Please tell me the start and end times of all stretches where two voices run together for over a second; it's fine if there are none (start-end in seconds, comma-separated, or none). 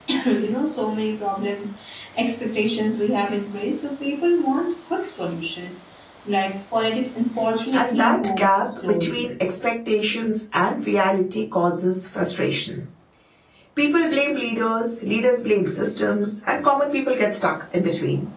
7.7-9.3